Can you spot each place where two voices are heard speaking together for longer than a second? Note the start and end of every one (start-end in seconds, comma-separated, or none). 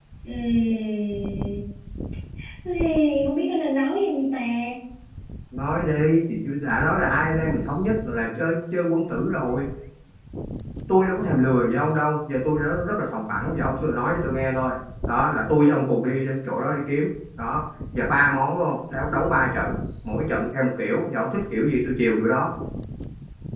none